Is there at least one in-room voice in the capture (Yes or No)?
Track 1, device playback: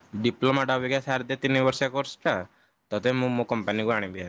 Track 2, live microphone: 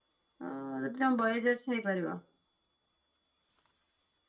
Yes